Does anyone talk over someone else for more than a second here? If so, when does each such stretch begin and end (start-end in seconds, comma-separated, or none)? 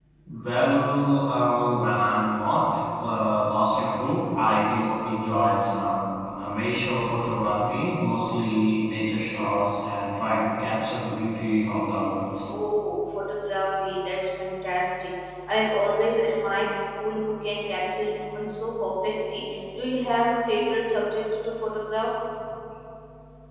none